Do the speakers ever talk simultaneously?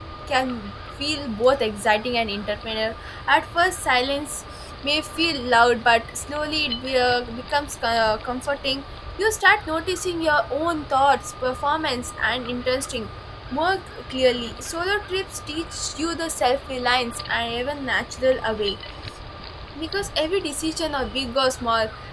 No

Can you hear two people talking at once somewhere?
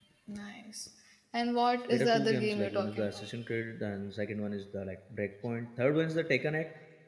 Yes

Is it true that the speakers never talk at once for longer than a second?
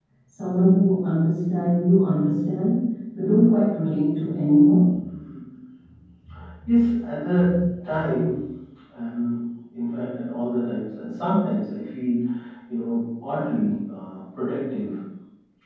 Yes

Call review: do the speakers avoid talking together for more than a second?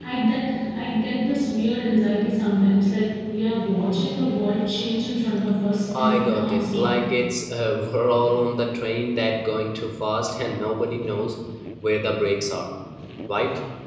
No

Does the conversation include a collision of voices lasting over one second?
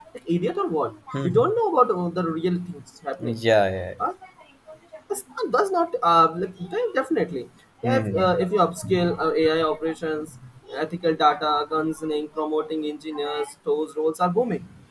No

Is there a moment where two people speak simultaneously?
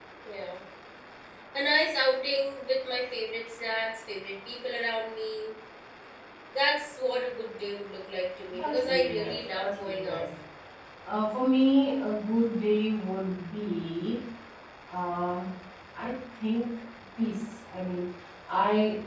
Yes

